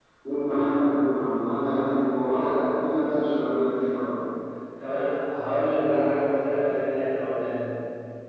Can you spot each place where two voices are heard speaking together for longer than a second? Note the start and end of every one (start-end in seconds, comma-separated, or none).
none